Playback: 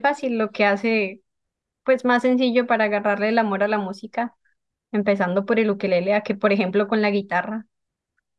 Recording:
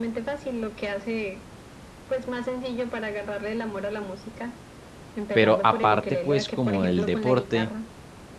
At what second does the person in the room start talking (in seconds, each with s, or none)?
5.3 s